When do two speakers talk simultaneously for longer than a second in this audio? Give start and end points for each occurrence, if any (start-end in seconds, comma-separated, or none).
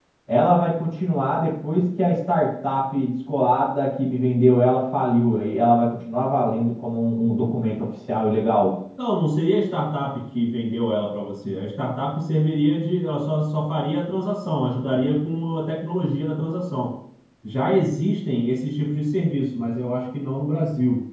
none